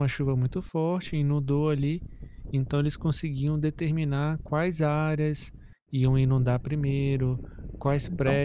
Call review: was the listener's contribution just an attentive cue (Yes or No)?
Yes